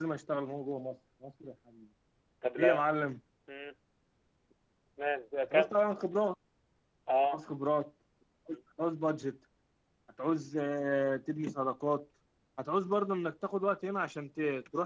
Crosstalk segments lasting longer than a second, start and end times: none

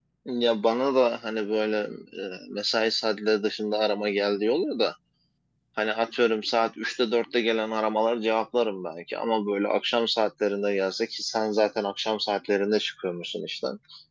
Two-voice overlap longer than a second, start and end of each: none

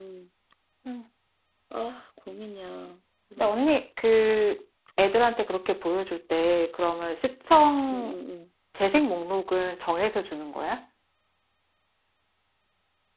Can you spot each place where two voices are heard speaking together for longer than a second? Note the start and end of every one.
none

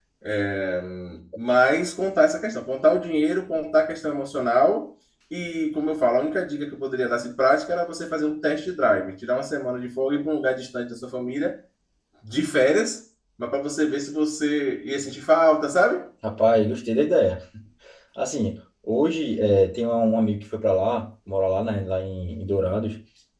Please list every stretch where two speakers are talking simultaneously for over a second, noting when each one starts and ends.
none

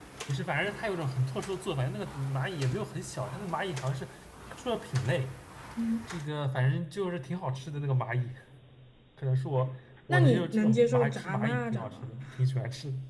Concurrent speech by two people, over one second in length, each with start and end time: 10.1-12.2

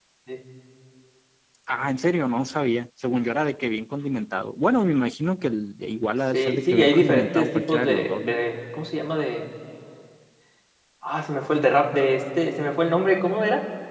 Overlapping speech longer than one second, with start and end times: 6.3-8.3

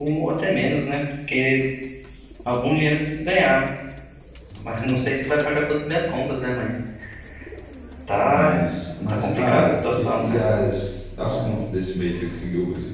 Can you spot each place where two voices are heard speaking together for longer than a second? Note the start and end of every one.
9.1-10.4

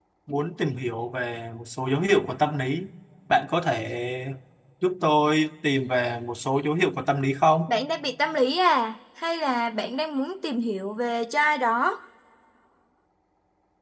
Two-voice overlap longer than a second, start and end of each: none

